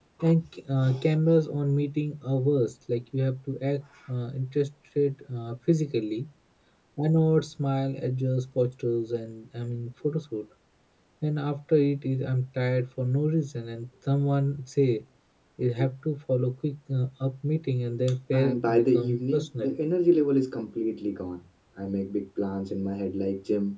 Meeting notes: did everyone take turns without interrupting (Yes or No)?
No